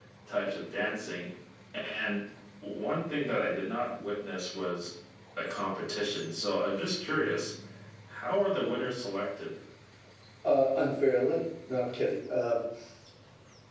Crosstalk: none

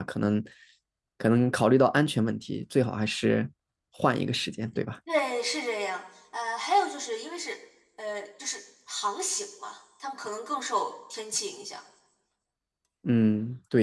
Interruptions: none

